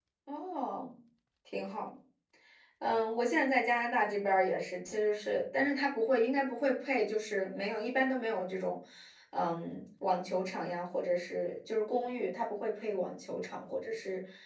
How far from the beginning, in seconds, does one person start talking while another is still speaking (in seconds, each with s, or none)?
none